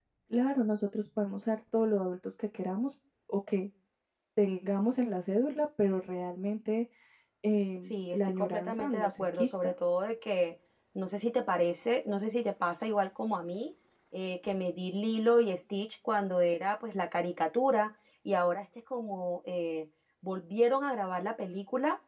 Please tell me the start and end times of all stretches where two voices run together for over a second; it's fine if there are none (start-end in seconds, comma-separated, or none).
7.9-9.7